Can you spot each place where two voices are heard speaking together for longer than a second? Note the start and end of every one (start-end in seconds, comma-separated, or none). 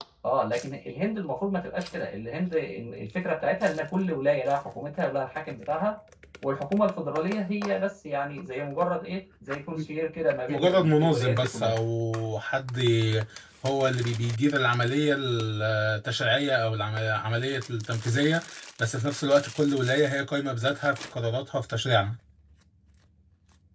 10.5-11.8